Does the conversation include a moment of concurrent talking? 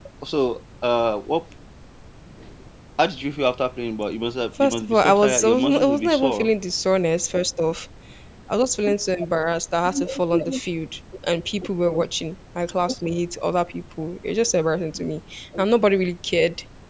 Yes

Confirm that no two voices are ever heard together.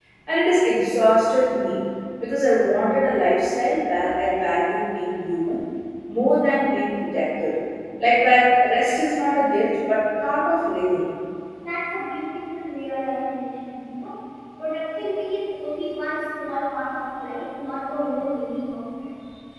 Yes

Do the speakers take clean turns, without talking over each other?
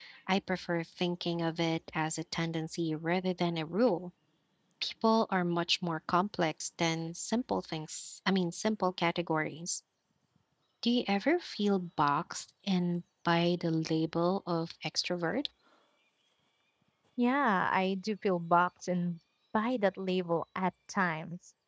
Yes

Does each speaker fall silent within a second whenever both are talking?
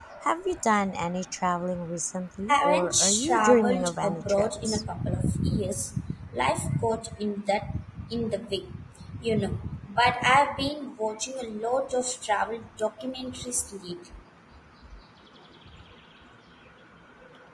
No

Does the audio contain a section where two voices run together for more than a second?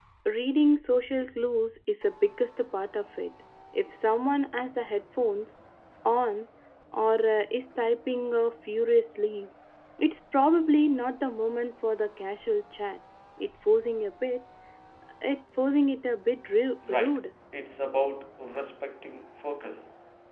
No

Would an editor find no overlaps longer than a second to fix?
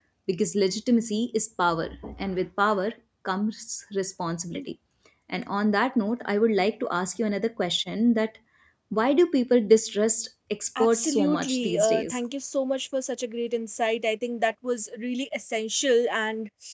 No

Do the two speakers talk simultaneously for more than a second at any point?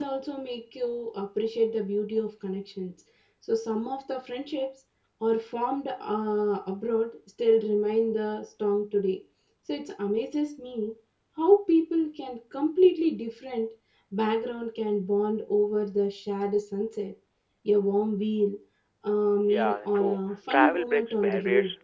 Yes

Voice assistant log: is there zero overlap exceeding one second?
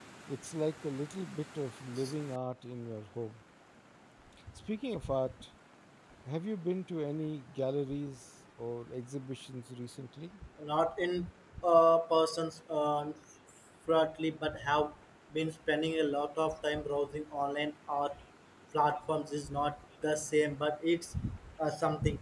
Yes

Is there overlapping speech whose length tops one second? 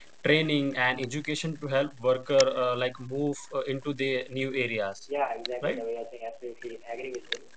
No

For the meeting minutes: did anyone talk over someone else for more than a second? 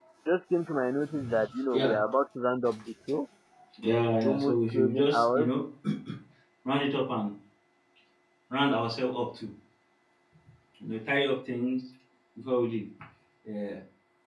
Yes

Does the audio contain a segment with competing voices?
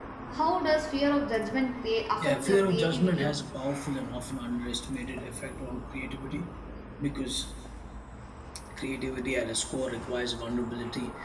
Yes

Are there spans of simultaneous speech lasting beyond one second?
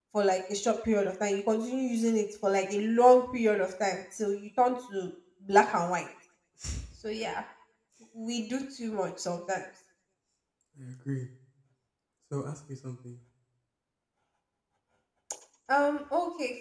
No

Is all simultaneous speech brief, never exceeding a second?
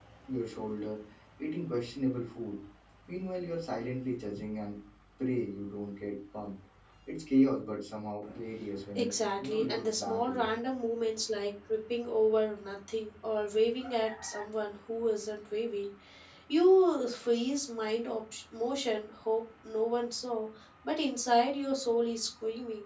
No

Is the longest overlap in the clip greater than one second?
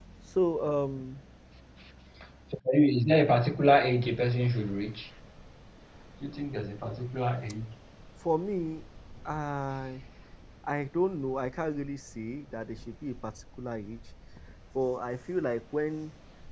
No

